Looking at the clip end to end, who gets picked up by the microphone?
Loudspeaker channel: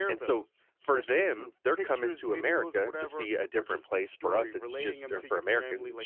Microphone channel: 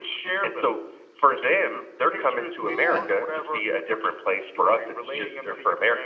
both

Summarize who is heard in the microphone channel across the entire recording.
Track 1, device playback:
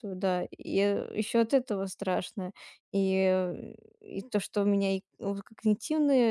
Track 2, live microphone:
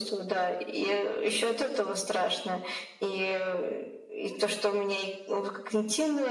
echo only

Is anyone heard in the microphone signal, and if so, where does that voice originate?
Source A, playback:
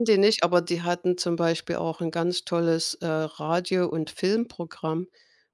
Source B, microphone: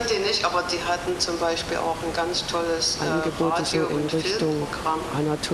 both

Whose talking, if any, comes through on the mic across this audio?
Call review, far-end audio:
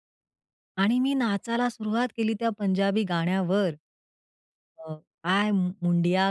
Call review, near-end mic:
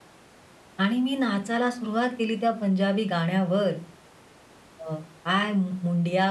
echo only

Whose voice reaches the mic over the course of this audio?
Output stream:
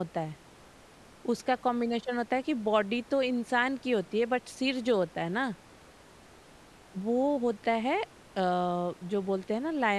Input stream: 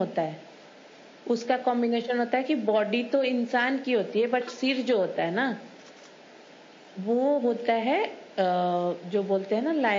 echo only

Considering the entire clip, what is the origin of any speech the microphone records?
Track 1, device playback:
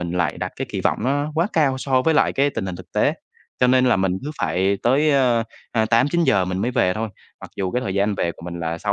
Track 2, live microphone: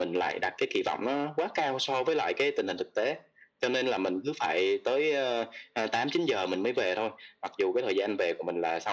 echo only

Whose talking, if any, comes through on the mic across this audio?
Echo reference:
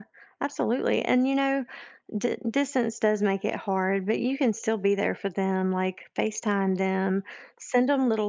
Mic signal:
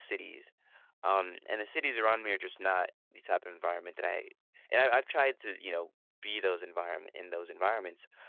user only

